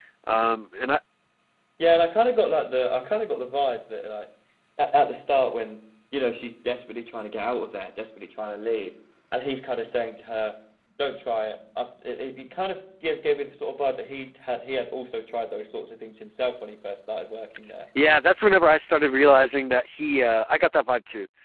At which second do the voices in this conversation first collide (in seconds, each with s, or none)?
none